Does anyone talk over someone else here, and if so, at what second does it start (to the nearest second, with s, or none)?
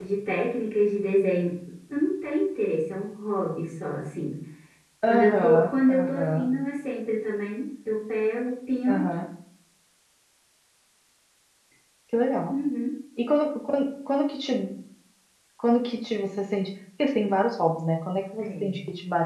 5 s